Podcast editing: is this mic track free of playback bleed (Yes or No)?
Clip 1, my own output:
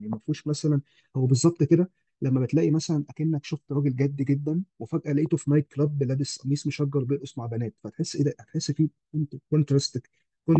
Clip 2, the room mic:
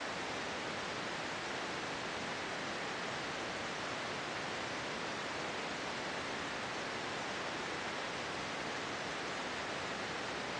Yes